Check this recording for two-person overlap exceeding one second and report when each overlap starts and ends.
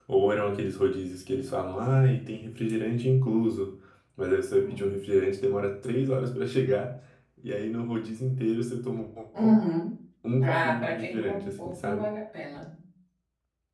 10.4-12.1

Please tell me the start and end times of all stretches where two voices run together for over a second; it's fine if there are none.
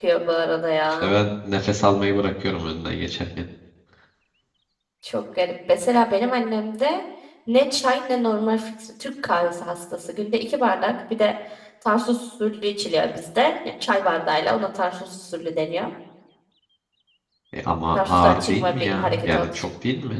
17.9-19.6

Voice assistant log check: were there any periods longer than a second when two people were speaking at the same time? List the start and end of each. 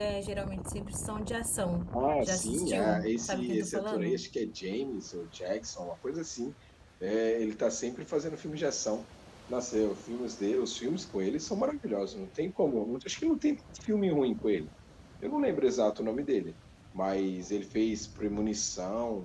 2.2-4.2

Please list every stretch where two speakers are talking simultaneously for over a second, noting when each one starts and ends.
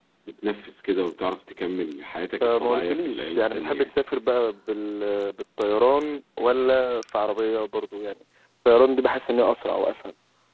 2.4-3.9

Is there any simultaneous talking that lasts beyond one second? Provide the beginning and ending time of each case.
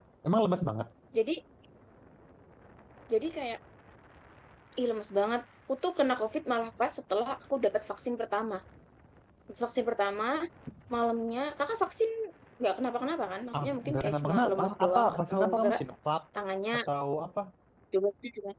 13.6-15.8

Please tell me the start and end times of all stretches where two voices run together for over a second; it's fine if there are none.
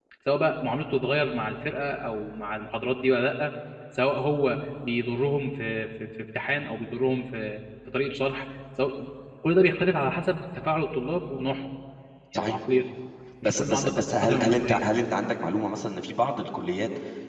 13.4-14.8

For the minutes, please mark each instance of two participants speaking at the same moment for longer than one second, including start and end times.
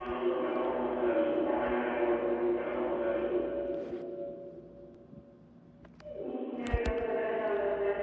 none

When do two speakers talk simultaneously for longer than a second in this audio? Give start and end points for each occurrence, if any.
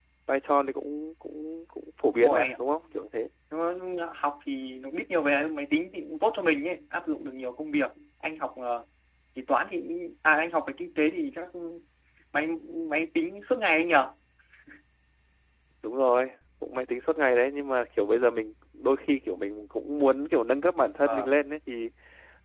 none

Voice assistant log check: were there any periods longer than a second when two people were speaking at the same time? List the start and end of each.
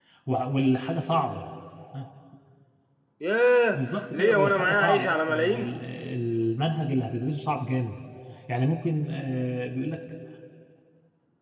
3.7-5.7

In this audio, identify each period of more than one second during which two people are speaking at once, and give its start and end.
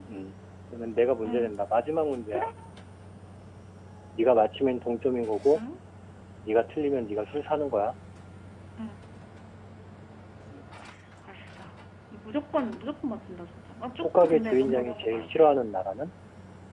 14.0-15.3

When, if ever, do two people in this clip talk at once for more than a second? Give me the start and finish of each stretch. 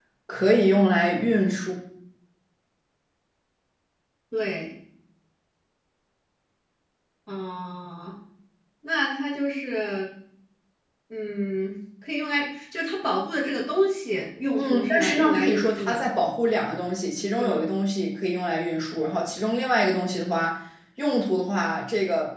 14.5-16.0

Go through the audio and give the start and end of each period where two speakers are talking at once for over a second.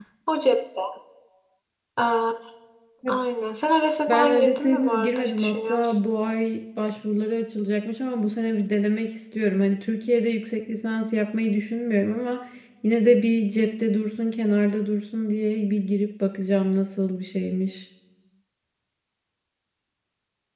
4.1-6.0

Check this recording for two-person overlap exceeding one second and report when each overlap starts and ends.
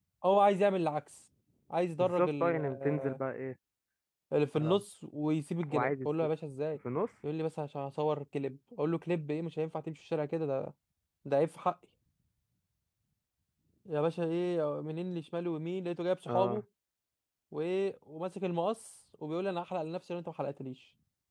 2.0-3.2

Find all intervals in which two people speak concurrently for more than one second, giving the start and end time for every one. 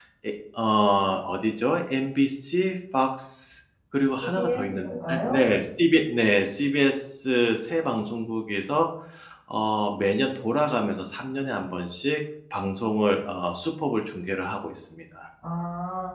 4.0-5.4

